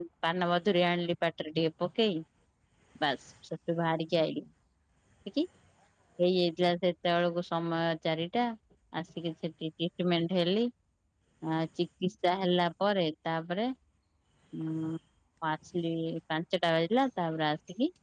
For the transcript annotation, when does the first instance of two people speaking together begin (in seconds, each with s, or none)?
none